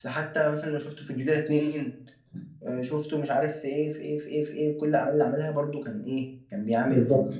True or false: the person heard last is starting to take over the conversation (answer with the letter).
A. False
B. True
A